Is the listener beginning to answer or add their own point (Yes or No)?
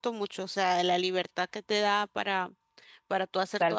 Yes